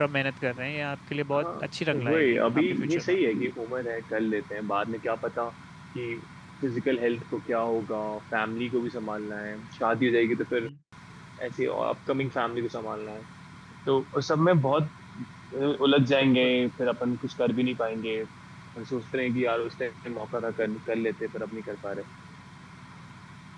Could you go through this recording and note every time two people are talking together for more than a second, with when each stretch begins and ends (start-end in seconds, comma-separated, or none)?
1.9-3.2